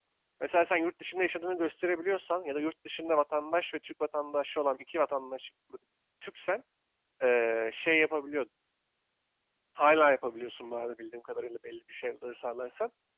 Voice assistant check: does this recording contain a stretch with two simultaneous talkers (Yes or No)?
No